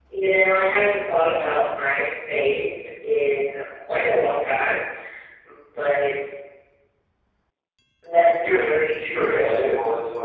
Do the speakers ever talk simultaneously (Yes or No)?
Yes